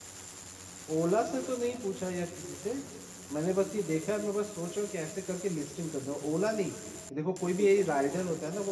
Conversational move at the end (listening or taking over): listening